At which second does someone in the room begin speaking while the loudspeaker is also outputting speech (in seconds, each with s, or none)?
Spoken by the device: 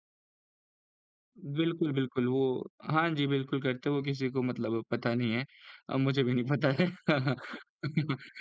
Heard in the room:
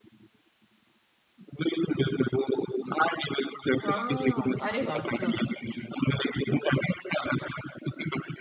3.8 s